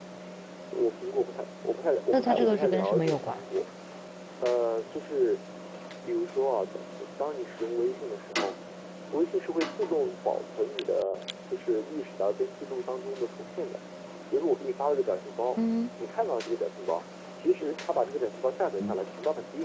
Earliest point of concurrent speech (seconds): 2.1 s

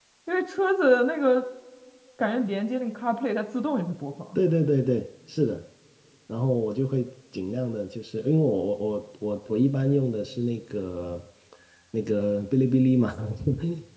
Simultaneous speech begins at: none

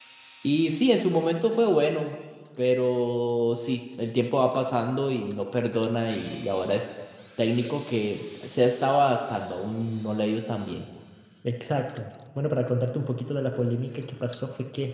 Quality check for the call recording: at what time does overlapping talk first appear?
none

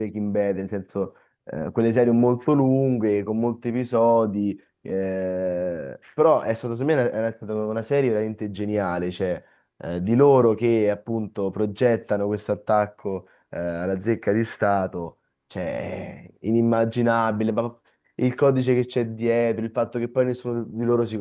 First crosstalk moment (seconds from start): none

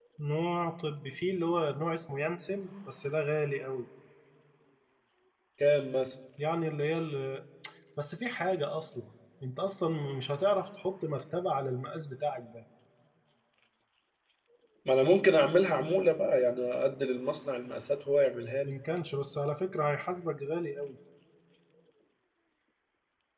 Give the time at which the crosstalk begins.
none

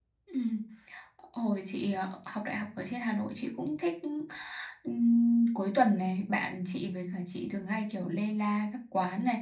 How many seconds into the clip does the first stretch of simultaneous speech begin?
none

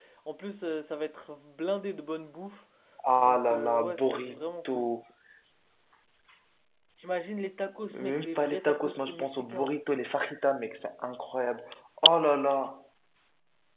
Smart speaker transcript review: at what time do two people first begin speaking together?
3.2 s

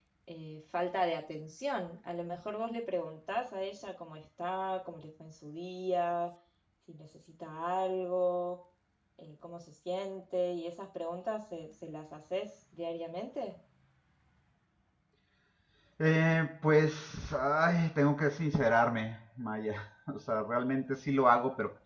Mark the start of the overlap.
none

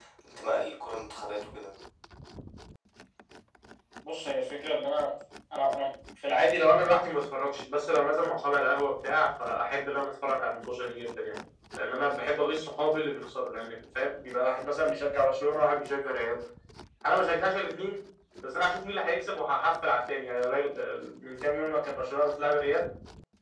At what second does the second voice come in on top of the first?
none

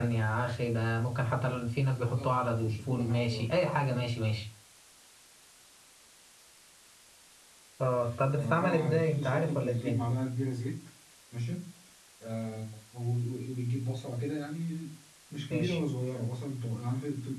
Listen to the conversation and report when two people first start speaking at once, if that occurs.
1.8 s

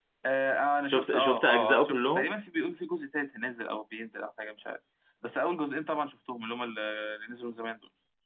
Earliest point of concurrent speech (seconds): 0.9 s

